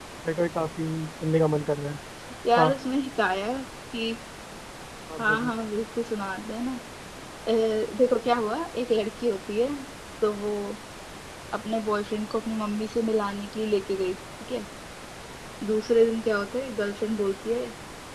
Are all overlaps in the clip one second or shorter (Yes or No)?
Yes